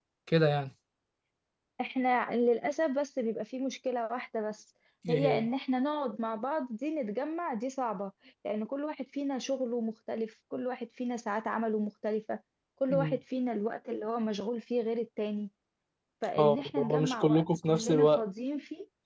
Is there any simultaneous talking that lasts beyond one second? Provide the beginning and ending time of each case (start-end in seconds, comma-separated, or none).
16.4-18.2